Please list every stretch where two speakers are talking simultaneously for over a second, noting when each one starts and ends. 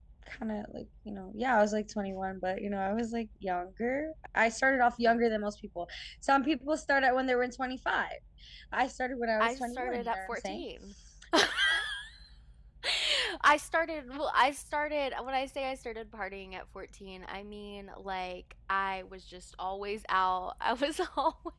9.4-10.6

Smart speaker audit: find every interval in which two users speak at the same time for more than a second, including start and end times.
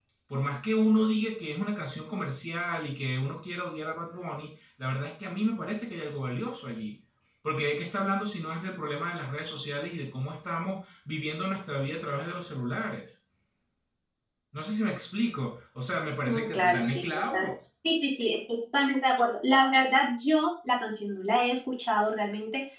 16.3-17.5

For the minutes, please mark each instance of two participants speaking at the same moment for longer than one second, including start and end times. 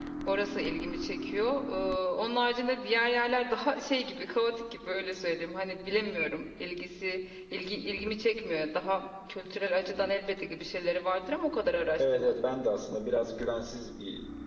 none

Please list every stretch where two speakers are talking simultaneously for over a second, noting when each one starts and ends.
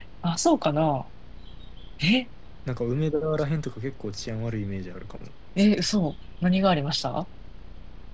none

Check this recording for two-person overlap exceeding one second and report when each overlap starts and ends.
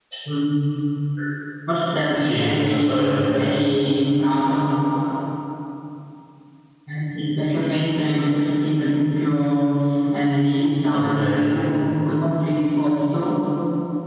2.1-3.5

